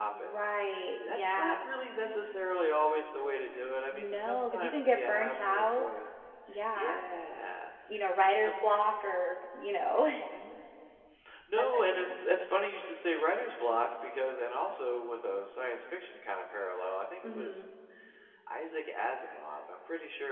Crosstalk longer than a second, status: present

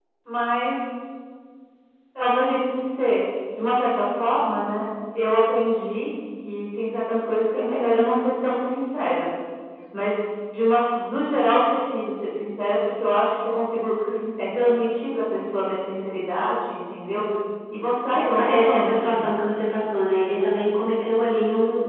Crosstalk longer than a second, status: present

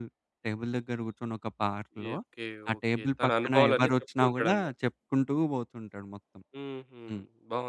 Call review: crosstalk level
present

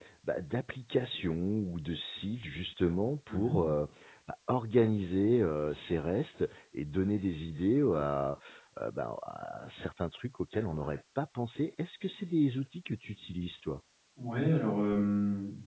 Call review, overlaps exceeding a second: none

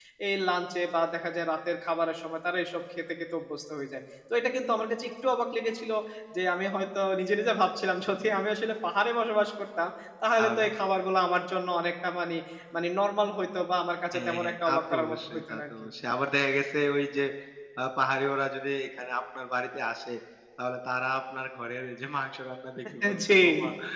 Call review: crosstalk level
present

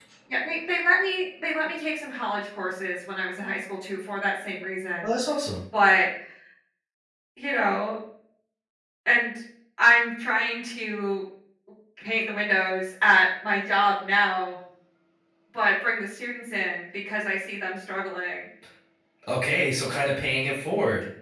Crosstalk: none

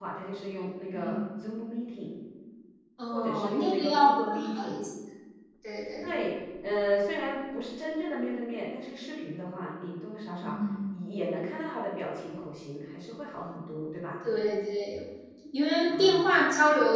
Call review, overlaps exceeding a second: present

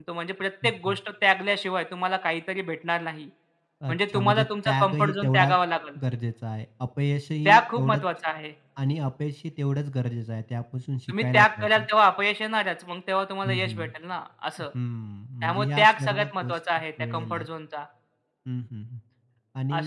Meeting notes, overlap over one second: present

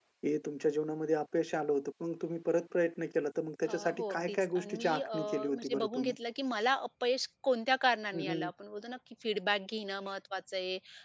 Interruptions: present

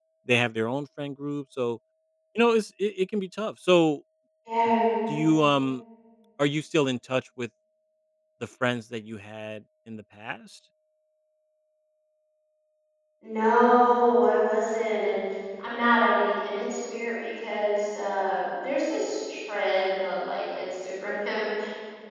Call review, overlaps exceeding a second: none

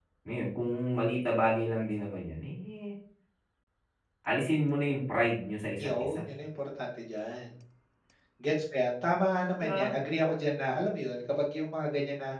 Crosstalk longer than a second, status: none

